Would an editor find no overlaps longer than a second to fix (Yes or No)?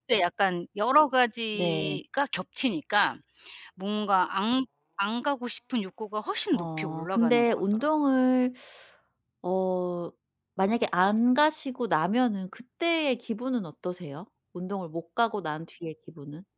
No